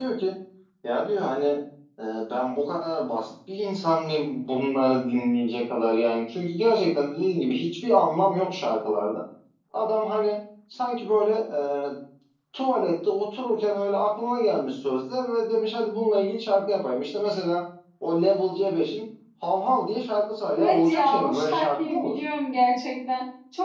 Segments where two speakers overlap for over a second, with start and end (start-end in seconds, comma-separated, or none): 20.6-22.1